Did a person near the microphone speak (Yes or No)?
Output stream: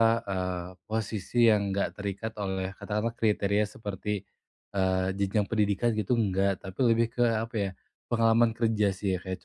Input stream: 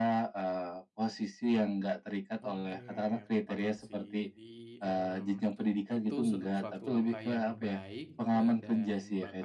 Yes